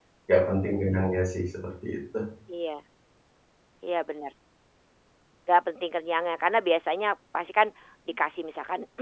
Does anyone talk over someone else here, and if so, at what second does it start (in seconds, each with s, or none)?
none